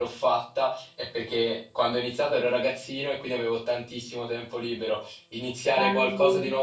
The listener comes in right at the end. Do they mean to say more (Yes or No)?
No